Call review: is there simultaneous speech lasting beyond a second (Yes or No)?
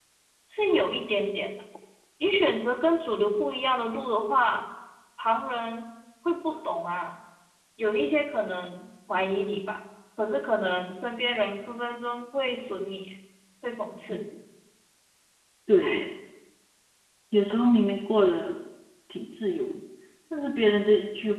No